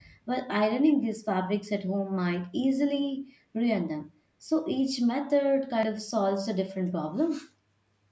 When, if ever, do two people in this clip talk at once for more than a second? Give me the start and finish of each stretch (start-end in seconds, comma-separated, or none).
none